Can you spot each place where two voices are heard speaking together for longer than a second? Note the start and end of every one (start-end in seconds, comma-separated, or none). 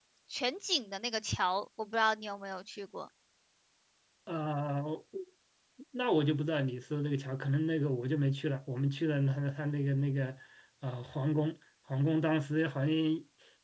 none